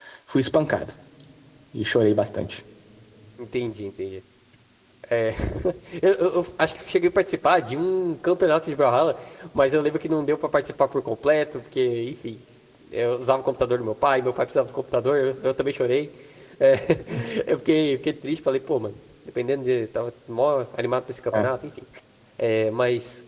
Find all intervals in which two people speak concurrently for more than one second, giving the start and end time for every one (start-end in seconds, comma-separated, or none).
none